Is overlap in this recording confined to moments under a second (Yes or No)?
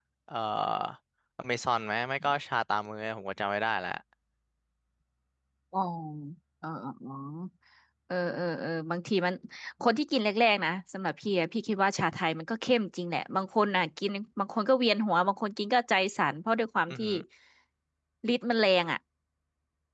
Yes